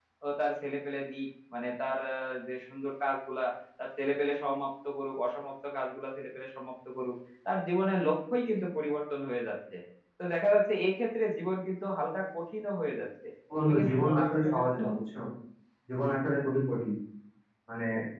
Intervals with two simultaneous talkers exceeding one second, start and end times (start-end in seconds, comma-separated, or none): 13.6-14.8